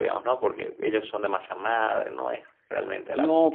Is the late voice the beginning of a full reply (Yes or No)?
Yes